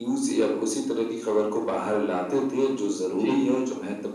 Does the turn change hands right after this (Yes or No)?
No